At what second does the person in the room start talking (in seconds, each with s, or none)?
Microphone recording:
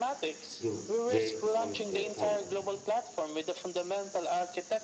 0.6 s